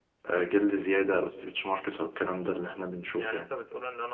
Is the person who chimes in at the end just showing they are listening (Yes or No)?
No